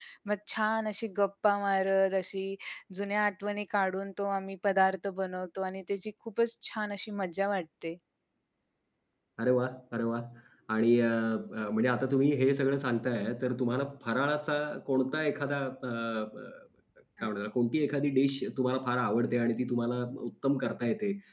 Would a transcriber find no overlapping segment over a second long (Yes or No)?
Yes